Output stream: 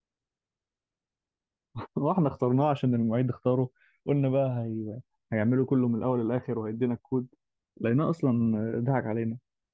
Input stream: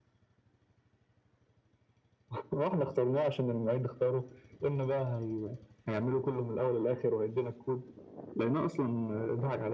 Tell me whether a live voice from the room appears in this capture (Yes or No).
No